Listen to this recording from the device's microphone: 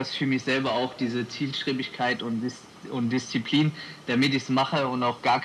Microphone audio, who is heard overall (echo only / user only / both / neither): echo only